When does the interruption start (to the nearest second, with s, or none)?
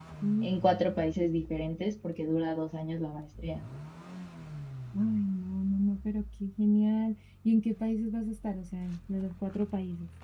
none